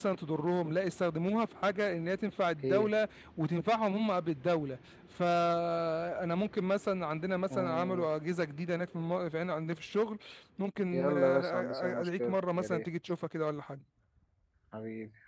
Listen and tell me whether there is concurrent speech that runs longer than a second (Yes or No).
Yes